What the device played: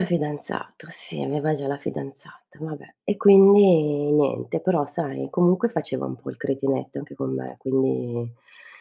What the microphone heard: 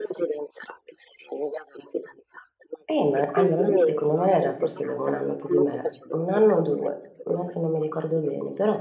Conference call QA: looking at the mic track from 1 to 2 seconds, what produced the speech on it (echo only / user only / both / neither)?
echo only